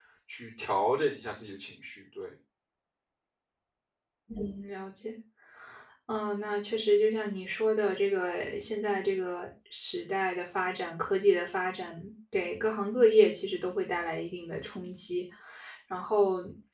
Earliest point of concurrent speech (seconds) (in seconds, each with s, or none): none